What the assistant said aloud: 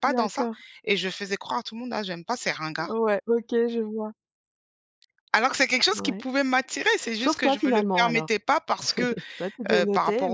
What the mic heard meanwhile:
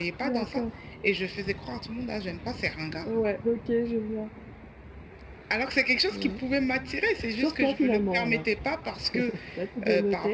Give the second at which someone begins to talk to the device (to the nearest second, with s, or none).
none